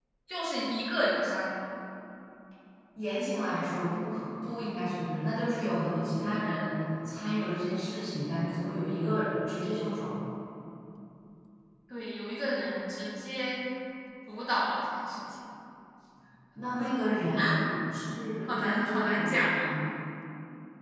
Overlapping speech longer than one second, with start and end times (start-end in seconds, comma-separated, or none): 18.5-19.7